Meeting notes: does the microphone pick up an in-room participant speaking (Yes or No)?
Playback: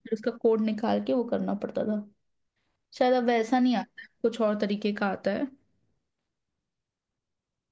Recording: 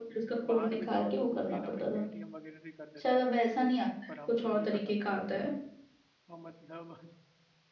Yes